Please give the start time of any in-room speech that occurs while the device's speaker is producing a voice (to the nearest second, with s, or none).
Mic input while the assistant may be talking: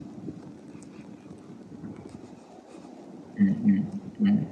3 s